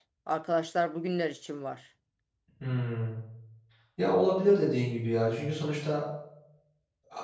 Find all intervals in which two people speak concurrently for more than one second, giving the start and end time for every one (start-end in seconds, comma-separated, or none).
none